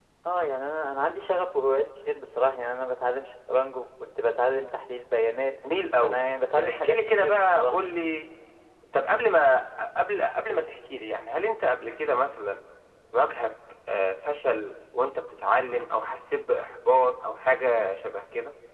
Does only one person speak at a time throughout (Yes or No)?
No